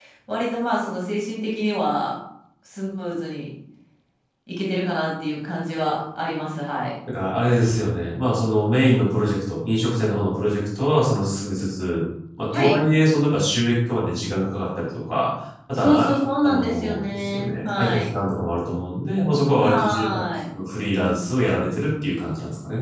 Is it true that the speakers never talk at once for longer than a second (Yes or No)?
No